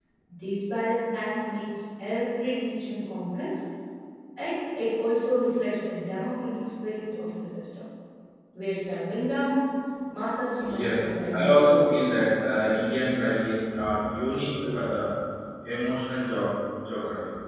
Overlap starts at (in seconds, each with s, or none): 10.6 s